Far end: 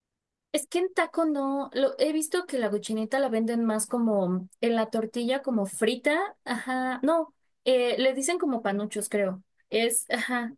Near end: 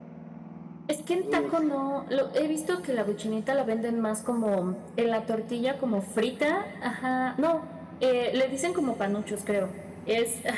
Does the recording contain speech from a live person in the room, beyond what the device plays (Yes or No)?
Yes